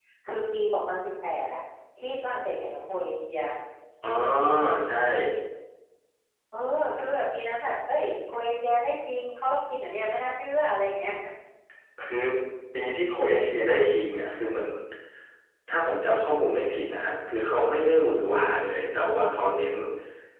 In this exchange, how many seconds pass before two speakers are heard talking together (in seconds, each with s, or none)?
none